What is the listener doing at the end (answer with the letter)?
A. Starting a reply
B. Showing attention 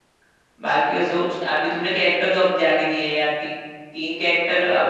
A